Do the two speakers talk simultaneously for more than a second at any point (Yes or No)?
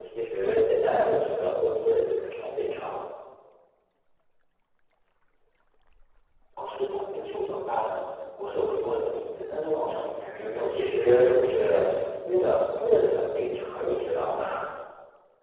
Yes